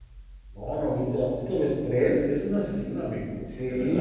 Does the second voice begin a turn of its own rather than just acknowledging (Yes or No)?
Yes